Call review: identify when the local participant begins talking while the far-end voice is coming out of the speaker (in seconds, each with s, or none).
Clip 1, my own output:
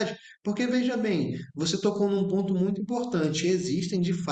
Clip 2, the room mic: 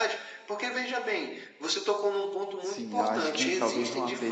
2.6 s